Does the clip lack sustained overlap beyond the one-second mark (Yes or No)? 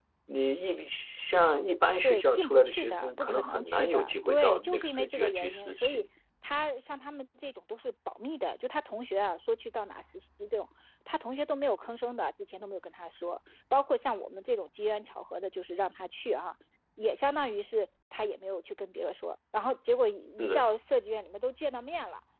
No